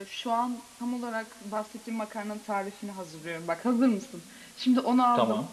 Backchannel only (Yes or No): Yes